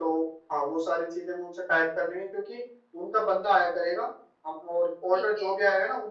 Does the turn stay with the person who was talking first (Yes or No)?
Yes